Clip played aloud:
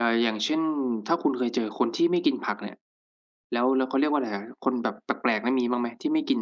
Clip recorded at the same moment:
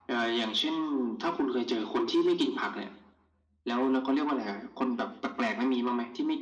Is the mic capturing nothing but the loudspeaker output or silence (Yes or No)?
Yes